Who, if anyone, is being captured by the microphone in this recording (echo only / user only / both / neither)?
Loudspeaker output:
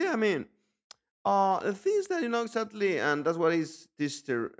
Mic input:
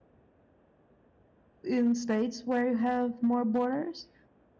user only